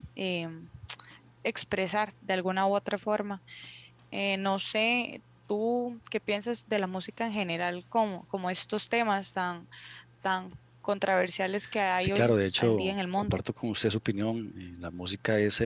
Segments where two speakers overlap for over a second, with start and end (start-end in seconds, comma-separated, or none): 12.0-13.4